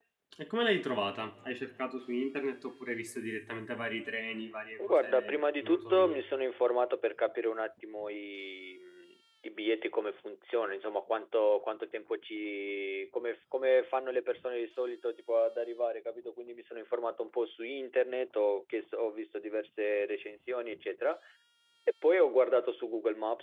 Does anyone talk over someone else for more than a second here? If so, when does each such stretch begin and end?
4.8-6.2

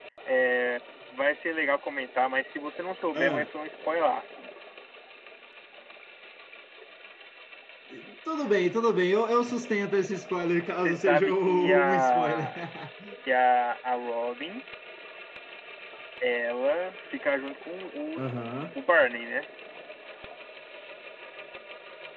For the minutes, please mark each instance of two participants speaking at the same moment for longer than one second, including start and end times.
10.7-12.5

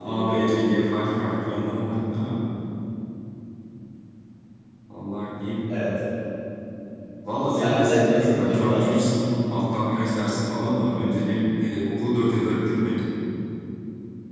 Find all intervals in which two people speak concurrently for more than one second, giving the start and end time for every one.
7.5-9.0

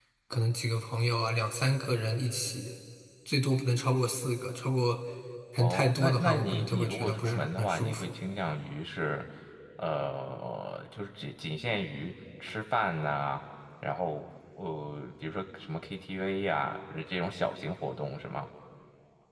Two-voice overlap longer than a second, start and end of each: 5.6-8.1

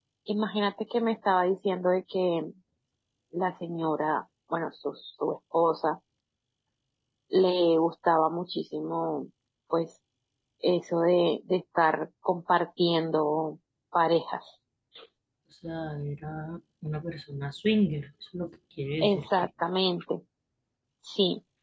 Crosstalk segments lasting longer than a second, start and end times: none

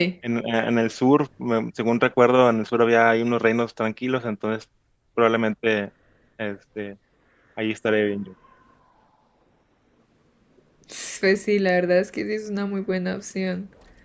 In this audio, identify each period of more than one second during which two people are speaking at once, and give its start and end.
none

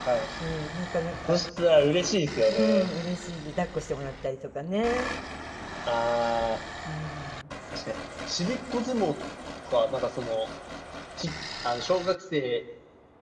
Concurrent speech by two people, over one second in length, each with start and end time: none

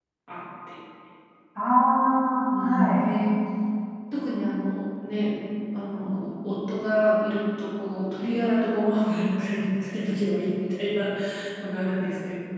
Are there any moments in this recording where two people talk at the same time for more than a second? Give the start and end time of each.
none

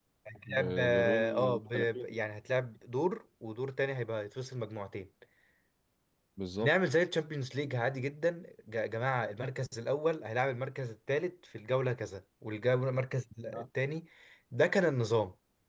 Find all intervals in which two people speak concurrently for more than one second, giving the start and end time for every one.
0.6-2.1

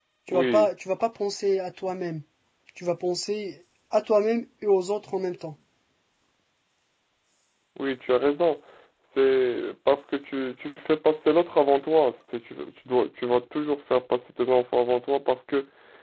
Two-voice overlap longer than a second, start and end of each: none

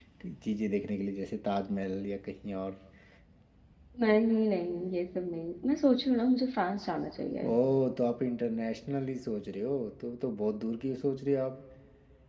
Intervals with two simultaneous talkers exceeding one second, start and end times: none

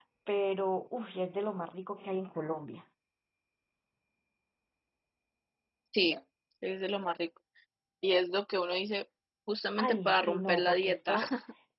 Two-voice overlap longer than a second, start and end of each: 9.8-11.2

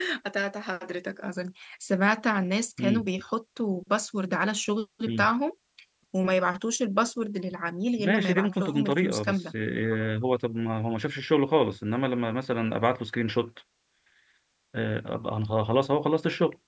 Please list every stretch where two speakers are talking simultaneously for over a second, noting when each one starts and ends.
8.0-9.4

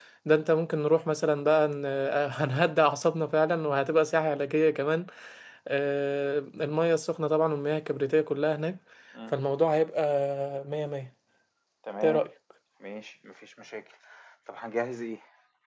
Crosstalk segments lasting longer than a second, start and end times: none

